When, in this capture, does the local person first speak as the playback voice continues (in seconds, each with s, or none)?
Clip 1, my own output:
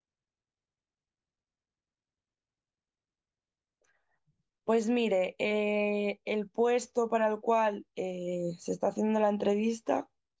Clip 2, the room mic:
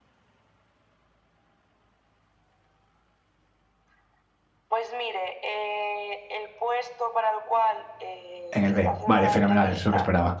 8.5 s